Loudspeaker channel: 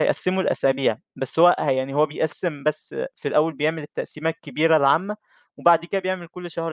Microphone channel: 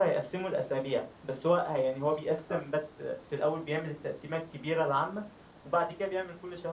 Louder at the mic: echo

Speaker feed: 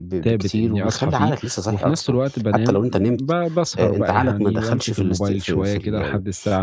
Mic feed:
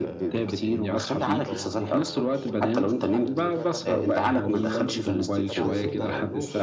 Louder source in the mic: echo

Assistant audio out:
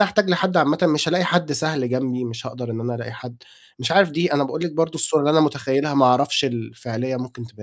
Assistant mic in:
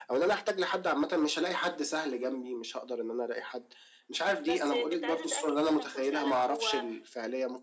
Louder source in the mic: echo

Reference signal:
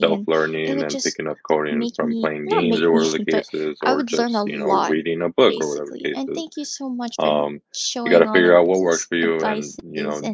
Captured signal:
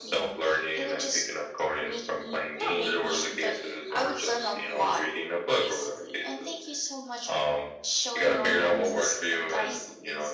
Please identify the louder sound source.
echo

